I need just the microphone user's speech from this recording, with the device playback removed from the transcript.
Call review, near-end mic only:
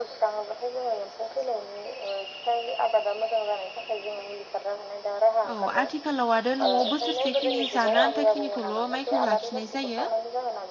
औ आथिखालाव आरो न'वाव बोसोरसे खिनि जानो आथा खिनिखौल' माइ खौ लाखिनाय जायो

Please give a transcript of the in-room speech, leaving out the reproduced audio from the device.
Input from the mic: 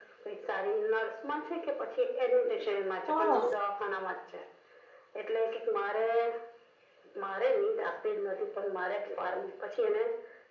હા

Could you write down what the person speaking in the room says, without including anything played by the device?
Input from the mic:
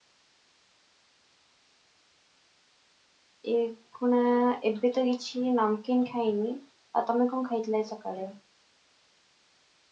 ଏ ଖୁଣା ଏବେ ତ କିଛି ନମକିନ୍ ଖାଇନି ଆଉ ତମେ କଣ ଖାଇଥିଲ ଆଜି ସକାଳେ

